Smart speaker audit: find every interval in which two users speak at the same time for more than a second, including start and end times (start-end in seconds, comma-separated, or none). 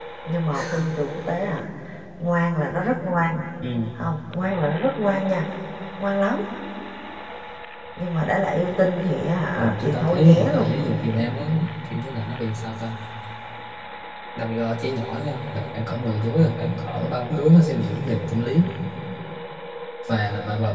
9.6-10.8